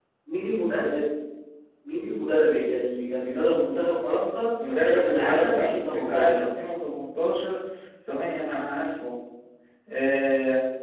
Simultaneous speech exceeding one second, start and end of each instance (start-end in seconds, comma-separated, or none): 4.9-6.5